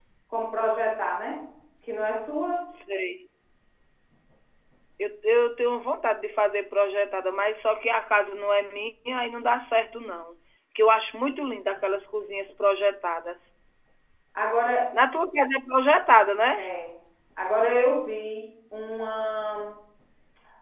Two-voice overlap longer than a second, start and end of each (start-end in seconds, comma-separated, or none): none